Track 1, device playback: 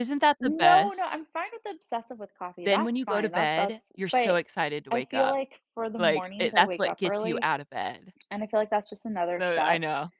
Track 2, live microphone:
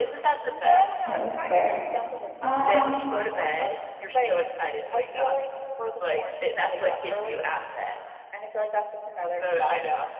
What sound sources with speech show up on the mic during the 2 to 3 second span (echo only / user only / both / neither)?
both